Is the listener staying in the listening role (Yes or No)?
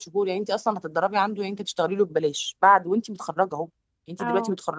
Yes